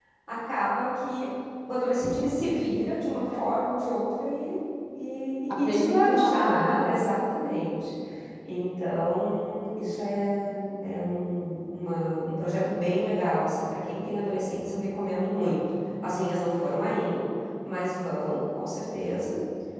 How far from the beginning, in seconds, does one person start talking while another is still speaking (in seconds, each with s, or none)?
5.5 s